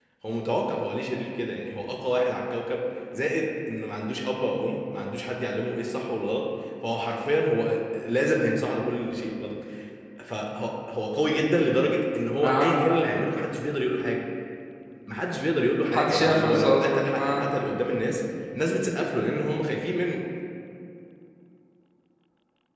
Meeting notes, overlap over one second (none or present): present